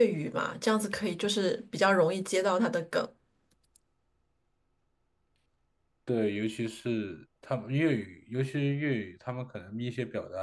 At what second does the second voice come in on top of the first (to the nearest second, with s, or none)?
none